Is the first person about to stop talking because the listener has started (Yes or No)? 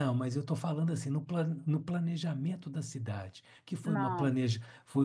No